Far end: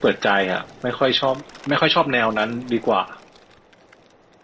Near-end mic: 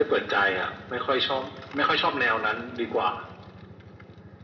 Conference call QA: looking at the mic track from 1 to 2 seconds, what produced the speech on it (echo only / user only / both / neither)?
echo only